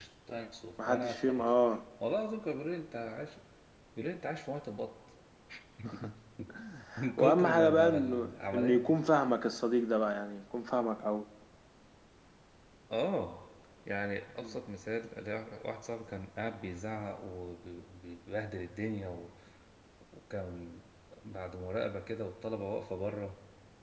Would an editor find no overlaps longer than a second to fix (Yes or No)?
No